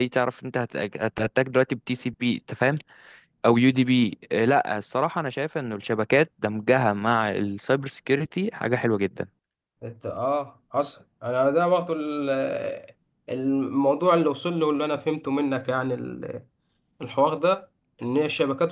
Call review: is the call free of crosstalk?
Yes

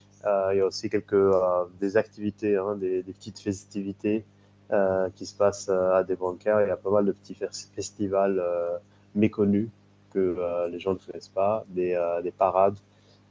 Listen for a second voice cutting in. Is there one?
No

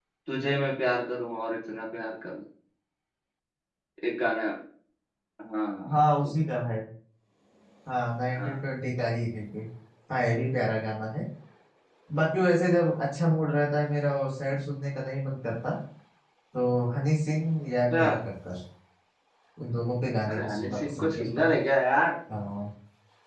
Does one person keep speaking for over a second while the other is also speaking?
Yes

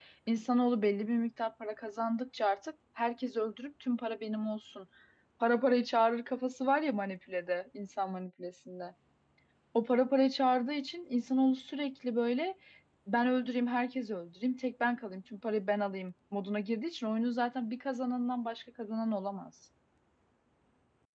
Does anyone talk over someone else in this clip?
No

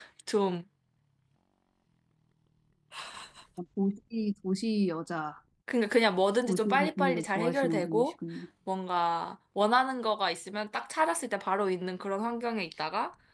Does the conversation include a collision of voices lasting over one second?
Yes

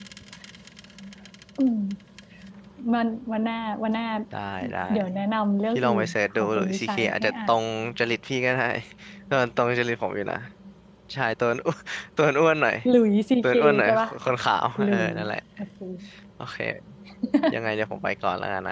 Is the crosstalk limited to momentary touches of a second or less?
No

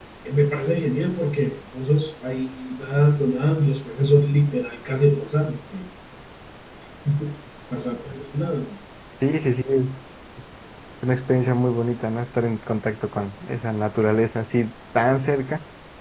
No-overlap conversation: Yes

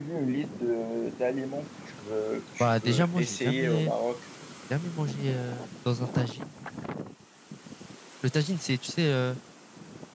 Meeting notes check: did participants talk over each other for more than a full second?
Yes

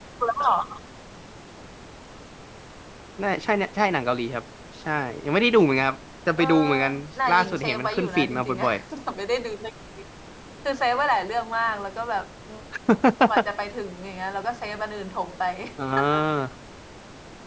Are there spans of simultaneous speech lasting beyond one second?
Yes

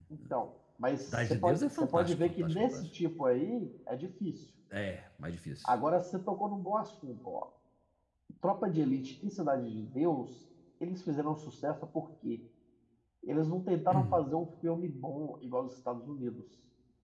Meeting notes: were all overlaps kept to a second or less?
No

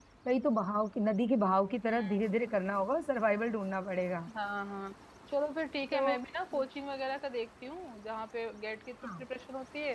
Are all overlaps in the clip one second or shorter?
Yes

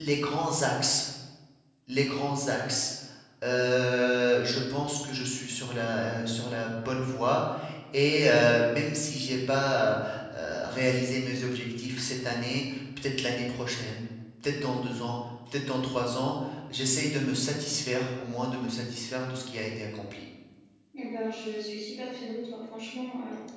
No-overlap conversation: Yes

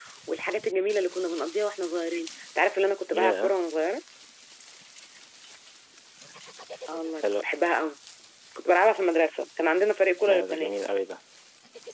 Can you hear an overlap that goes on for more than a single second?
No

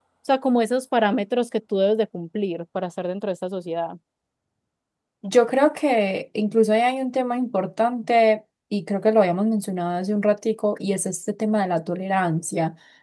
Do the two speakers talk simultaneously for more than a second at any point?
No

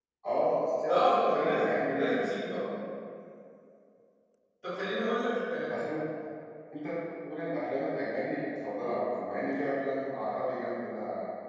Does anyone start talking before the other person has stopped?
Yes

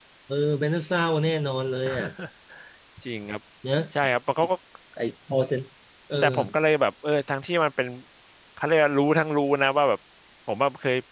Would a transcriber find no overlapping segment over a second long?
Yes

